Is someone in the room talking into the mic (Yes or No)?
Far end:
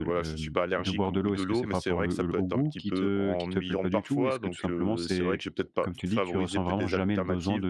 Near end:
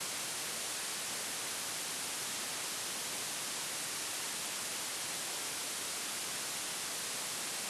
No